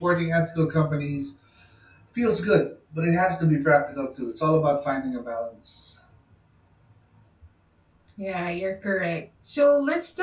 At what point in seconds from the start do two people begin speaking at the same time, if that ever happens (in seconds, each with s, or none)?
none